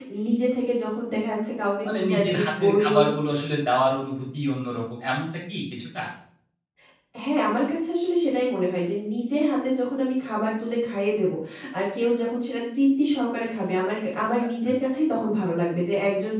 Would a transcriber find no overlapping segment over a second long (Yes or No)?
No